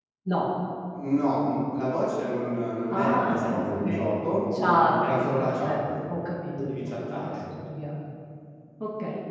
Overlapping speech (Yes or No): Yes